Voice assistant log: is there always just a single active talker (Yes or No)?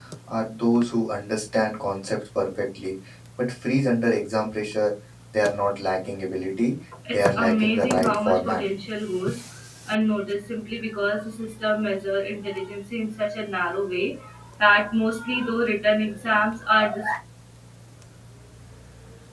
No